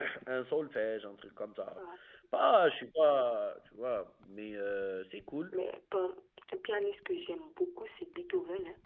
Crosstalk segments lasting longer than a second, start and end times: none

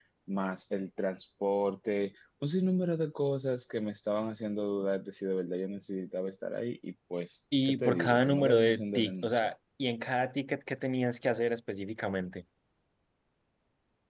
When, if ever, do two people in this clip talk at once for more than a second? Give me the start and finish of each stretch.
7.7-9.5

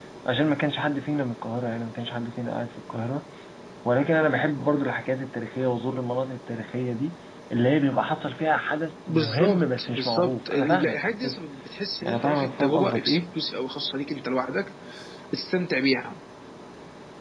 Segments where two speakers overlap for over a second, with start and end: 9.1-11.4, 12.0-13.2

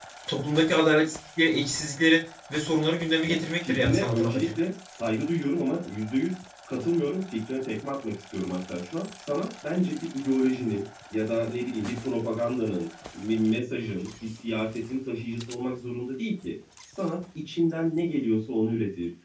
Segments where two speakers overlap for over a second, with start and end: 3.2-4.6

